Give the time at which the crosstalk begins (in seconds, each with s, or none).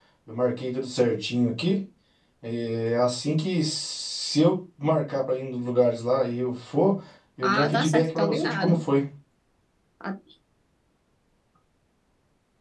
7.4 s